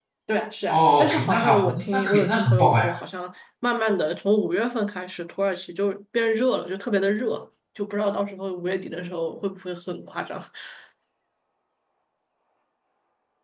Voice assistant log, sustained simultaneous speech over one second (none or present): present